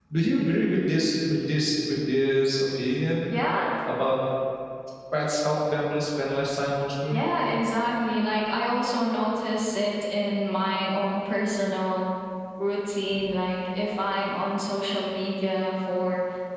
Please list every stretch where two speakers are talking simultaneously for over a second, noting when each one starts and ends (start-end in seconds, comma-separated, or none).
none